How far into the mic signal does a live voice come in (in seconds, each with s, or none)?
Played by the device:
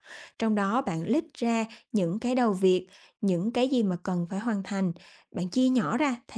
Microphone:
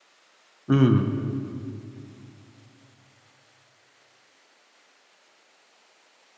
0.7 s